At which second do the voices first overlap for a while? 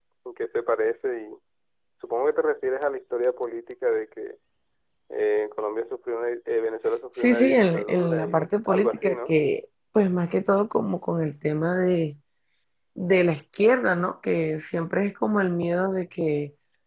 7 s

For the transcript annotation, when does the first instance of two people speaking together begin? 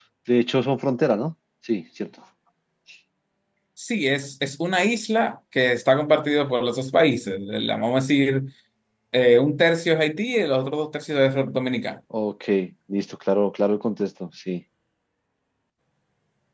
none

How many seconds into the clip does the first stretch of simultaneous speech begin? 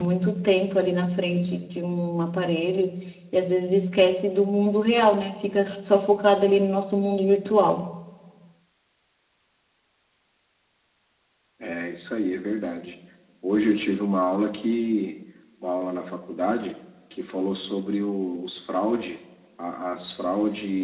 none

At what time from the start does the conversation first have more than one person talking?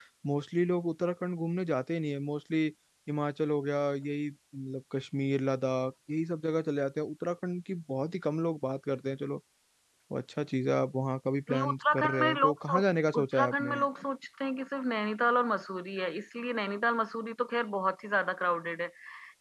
11 s

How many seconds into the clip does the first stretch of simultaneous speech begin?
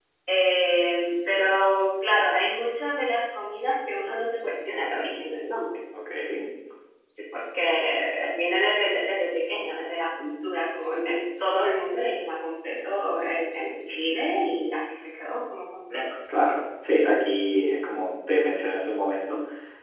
none

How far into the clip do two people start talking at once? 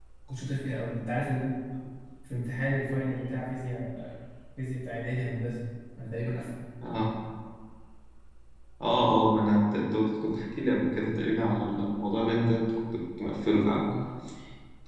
none

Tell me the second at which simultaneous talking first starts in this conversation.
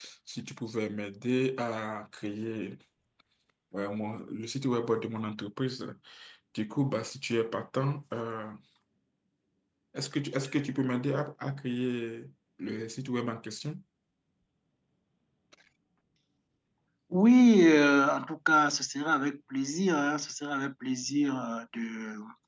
none

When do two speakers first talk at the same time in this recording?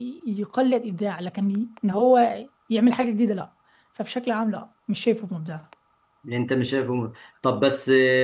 none

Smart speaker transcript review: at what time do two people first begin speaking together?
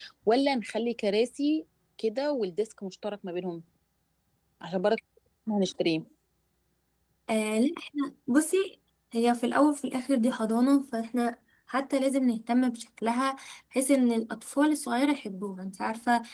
none

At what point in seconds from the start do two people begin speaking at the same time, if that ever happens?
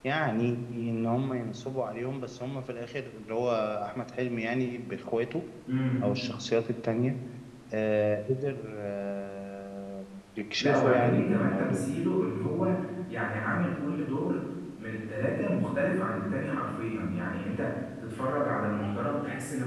11 s

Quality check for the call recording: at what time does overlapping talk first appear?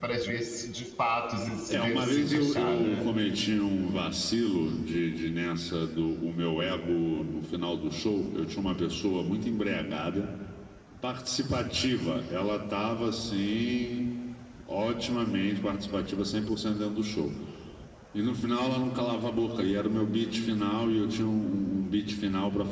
2 s

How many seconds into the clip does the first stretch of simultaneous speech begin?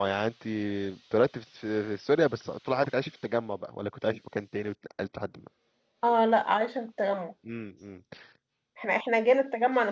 none

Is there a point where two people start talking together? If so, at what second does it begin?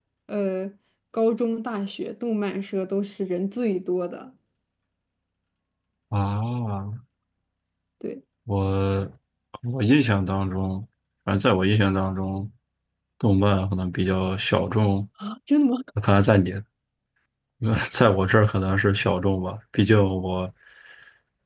none

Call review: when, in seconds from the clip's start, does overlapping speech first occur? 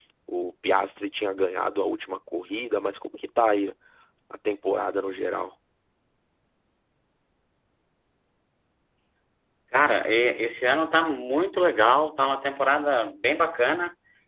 none

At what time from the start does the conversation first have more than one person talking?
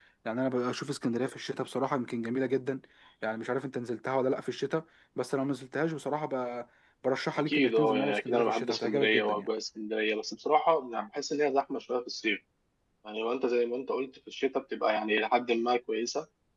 7 s

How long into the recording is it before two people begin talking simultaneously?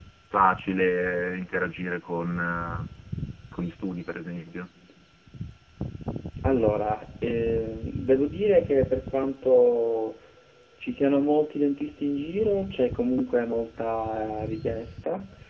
none

